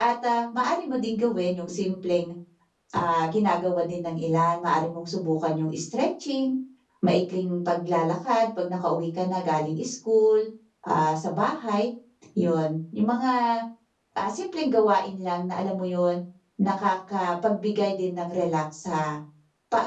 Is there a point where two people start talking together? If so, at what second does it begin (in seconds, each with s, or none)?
none